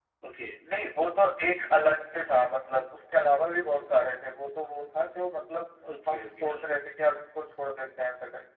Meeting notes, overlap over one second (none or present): none